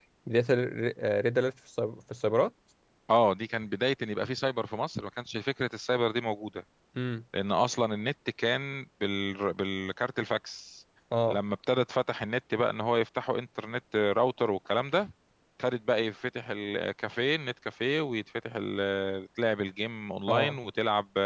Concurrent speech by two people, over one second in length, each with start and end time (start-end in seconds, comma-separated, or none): none